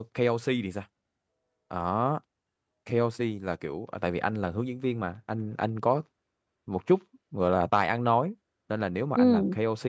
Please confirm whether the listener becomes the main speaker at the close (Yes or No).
No